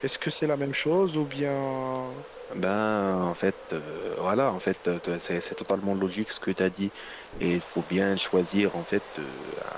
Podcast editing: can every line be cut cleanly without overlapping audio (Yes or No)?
Yes